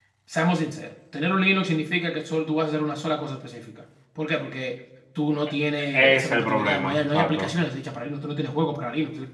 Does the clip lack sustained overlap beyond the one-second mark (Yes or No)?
No